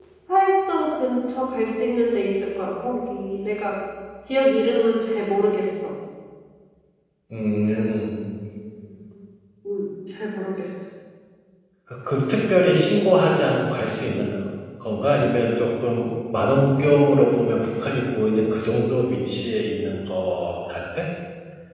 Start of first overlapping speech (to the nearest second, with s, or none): none